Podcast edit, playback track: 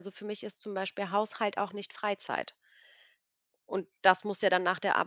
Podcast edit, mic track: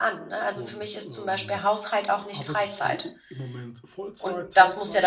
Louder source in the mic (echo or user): echo